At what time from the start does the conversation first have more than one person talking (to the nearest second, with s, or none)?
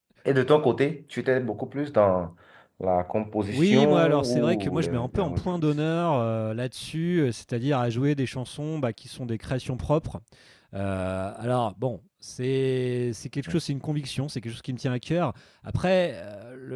4 s